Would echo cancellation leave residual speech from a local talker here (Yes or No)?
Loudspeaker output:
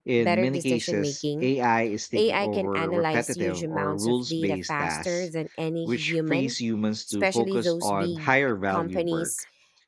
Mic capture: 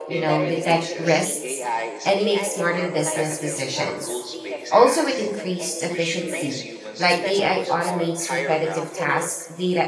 Yes